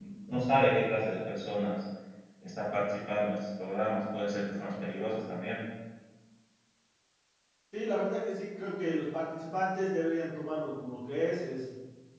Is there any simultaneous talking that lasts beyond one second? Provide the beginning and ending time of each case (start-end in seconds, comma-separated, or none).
none